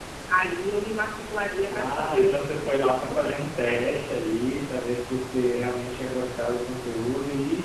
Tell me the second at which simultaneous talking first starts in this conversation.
1.7 s

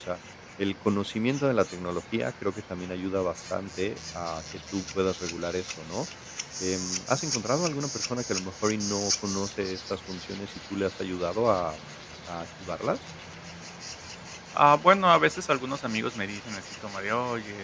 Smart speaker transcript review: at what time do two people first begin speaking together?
none

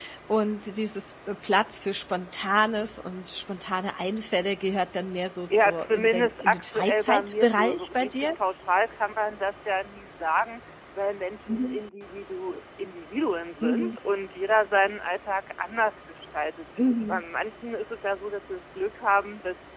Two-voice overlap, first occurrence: 5.5 s

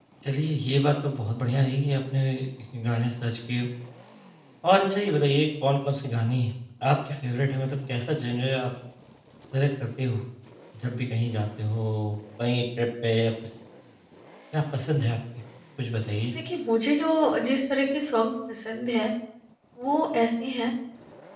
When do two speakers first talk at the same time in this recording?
none

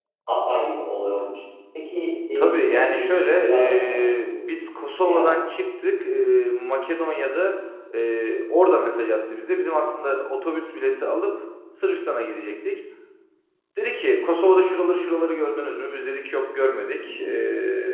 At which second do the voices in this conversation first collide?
2.4 s

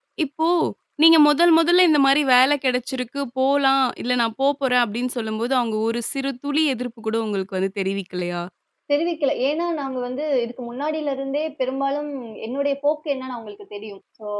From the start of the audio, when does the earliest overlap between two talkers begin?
none

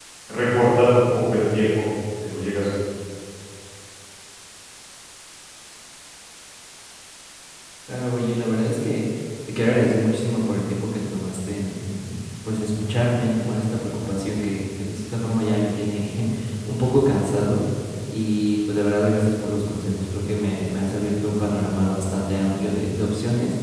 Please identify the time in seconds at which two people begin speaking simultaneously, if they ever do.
none

